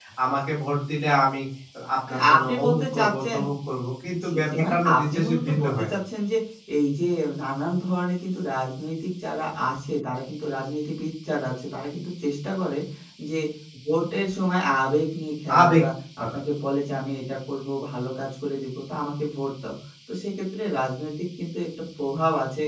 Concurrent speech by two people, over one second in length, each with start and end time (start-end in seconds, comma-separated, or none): 2.1-3.4, 4.2-5.9